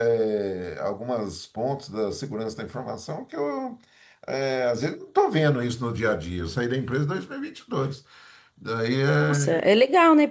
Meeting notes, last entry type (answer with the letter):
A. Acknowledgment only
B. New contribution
B